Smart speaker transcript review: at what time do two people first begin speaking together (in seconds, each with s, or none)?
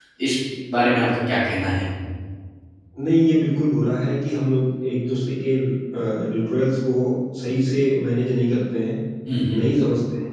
none